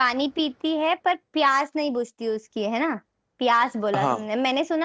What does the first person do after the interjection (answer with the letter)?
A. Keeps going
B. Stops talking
A